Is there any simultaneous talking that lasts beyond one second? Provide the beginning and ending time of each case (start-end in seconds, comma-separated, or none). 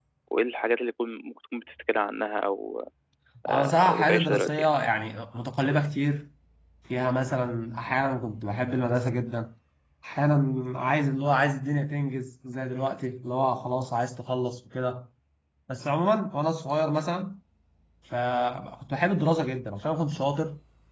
3.5-4.7